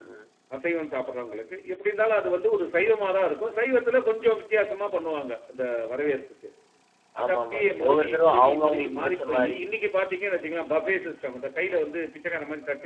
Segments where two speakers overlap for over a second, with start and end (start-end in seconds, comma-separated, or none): 7.2-9.6